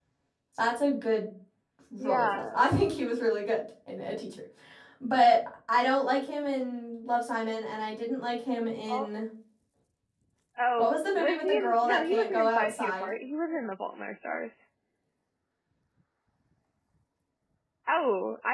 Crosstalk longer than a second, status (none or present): present